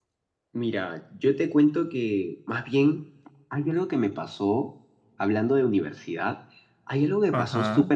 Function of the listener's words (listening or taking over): listening